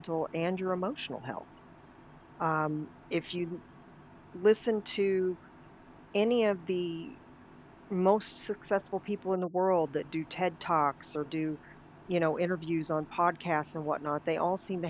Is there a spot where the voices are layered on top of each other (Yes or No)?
No